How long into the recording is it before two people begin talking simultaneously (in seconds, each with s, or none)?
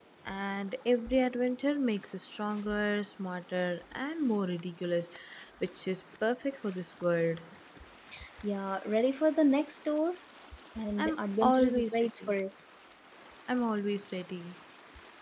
11.0 s